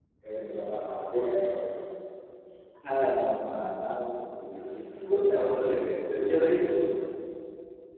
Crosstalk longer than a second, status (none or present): none